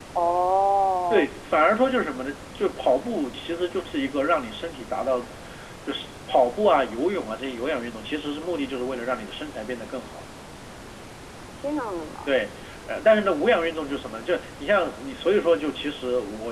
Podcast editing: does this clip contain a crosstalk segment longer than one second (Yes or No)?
No